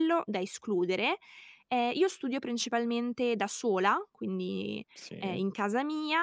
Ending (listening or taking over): listening